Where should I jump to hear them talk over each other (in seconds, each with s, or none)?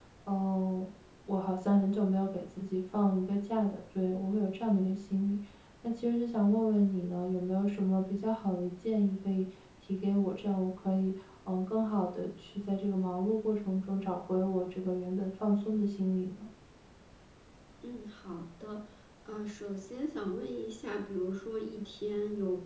none